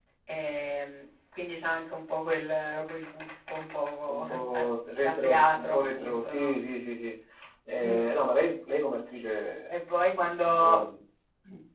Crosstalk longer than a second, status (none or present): present